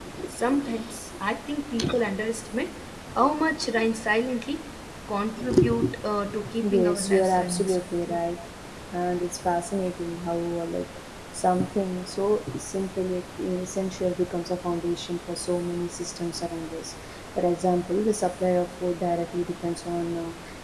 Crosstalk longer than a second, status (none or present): present